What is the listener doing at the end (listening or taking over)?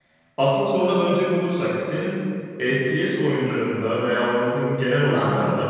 listening